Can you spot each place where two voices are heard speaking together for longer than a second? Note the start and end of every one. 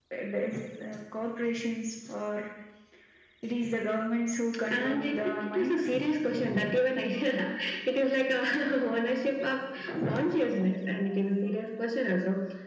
4.7-5.9

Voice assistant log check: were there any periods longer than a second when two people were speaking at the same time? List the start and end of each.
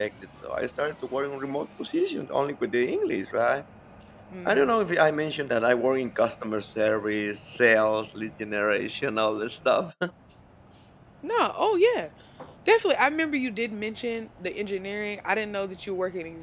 none

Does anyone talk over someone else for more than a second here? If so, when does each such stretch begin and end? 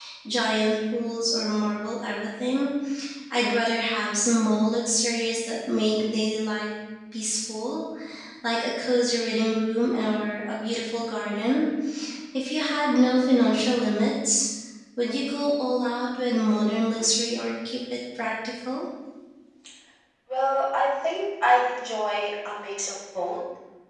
none

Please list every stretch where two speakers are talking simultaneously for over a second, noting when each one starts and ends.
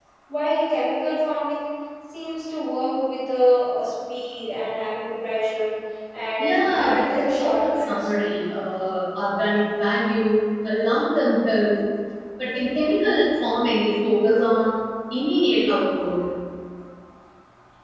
6.4-8.1

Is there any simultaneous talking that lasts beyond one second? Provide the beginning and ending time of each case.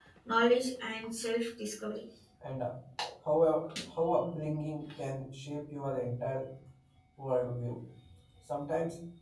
none

